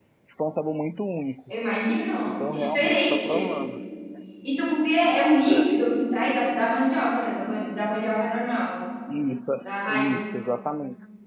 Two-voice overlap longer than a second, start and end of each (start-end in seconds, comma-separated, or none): 2.2-3.5